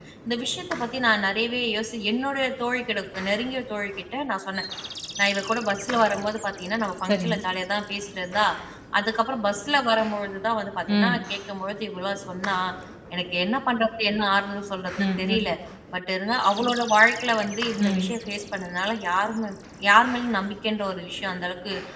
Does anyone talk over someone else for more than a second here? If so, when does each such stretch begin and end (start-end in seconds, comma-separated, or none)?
none